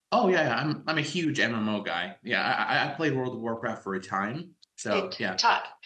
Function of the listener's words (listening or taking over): taking over